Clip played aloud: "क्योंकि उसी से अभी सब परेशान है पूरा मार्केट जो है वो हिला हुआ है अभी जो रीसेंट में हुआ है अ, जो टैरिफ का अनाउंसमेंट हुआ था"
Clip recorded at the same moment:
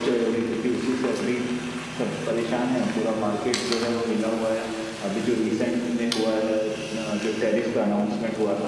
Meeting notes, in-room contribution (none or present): none